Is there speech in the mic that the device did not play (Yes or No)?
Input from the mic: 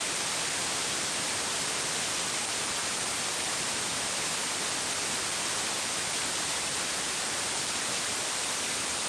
No